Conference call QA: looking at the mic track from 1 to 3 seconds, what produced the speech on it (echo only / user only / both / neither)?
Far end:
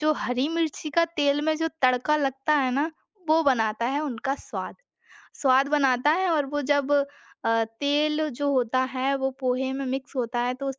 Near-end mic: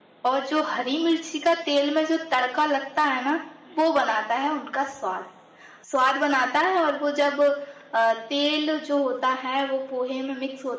echo only